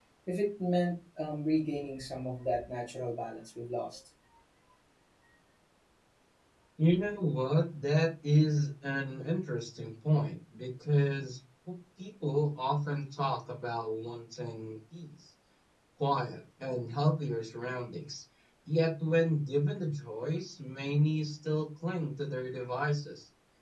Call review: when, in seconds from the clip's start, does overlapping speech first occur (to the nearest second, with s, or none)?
none